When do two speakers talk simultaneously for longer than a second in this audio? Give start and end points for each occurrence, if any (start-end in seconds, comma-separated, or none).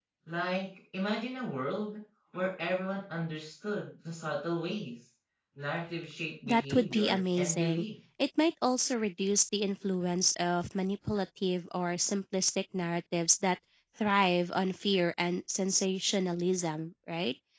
6.5-7.8